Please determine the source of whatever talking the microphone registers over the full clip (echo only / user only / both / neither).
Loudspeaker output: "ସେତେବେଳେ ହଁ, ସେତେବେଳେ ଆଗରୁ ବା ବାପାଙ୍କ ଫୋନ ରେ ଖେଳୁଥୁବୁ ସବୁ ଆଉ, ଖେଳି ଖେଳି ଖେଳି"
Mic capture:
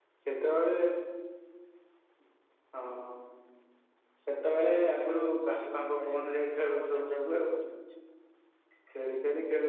both